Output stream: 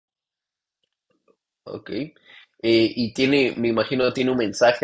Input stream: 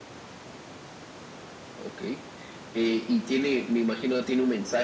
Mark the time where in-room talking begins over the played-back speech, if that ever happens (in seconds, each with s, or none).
none